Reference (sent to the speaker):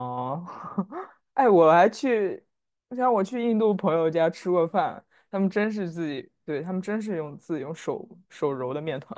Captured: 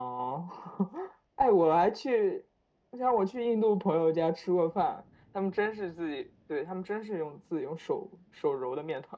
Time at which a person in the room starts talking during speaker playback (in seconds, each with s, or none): none